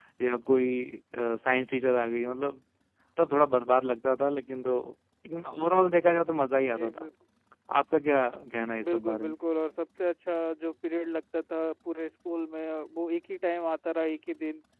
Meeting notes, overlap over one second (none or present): none